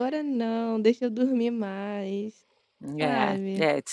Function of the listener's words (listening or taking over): taking over